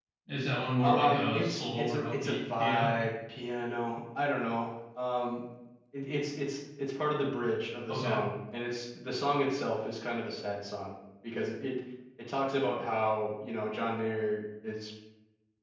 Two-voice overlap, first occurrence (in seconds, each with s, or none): 0.8 s